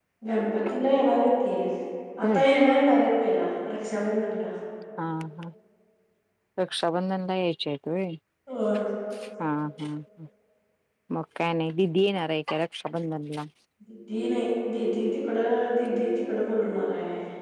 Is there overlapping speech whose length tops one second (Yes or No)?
No